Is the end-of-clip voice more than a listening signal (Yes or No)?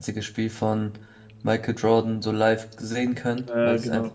No